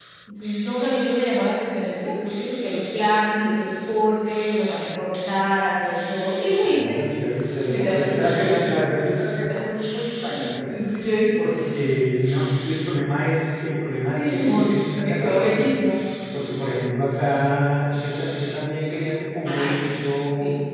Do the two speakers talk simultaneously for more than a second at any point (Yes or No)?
Yes